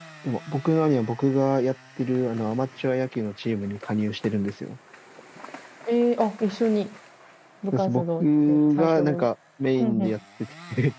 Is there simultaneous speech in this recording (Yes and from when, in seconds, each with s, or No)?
Yes, from 7.7 s